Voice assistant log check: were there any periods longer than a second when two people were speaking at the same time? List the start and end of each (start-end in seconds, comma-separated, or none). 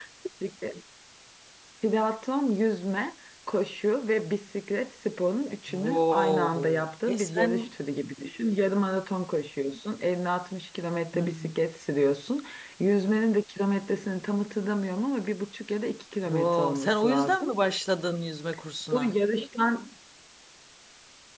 5.8-7.5, 16.3-17.5